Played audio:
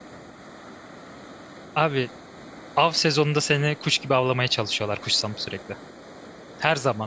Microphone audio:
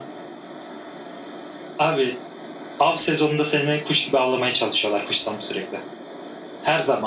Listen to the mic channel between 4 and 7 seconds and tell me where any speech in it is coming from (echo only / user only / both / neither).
echo only